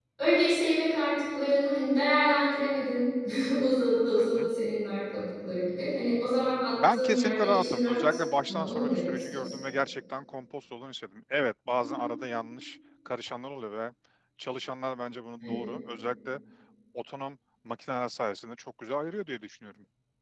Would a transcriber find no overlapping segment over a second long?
No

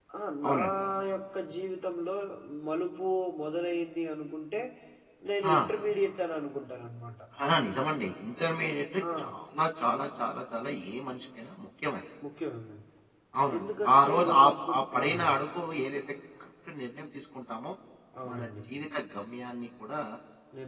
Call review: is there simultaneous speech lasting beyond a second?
Yes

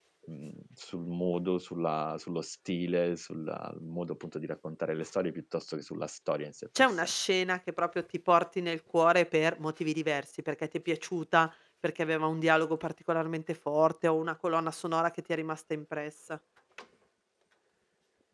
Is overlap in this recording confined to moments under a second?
Yes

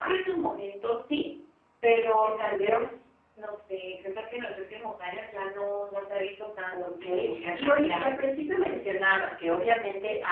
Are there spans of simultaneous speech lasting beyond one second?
Yes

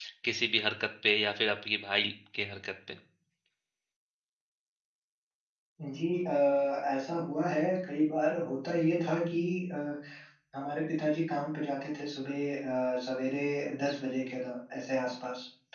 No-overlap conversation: Yes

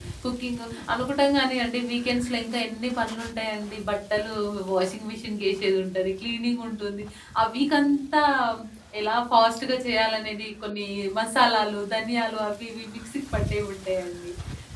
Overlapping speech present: No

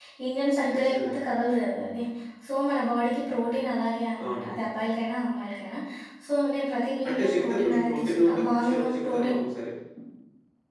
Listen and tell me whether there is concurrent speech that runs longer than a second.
Yes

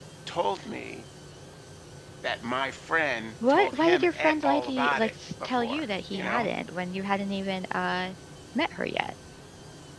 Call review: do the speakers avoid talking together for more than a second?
No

